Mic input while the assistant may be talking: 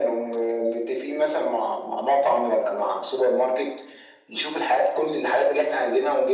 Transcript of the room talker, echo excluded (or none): none